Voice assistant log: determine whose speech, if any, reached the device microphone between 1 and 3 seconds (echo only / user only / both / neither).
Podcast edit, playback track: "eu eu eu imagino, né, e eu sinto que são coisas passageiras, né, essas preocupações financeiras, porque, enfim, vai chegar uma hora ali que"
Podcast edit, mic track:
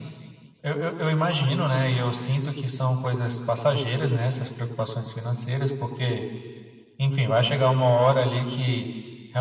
echo only